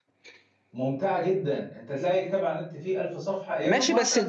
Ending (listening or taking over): taking over